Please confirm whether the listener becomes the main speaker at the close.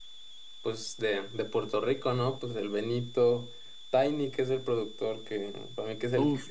Yes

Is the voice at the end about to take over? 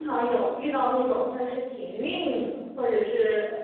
Yes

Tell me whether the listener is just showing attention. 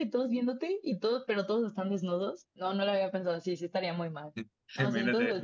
No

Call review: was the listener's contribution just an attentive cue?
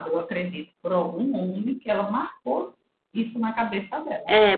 No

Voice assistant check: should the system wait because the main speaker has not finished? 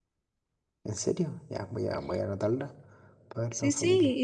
No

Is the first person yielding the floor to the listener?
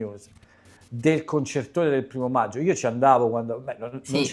No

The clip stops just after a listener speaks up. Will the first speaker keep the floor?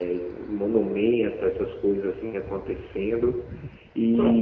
Yes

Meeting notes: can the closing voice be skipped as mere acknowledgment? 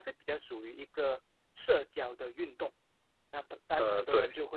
Yes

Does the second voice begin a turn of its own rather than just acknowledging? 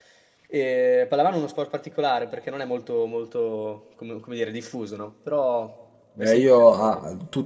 Yes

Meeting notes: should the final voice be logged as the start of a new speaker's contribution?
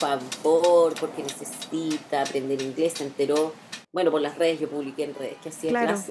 No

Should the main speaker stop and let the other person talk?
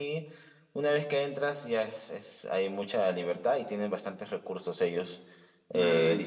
No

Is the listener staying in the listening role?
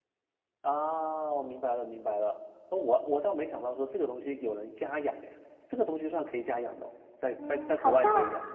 No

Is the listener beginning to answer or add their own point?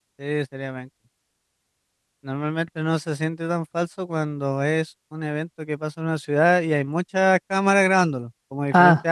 No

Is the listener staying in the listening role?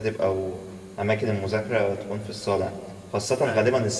Yes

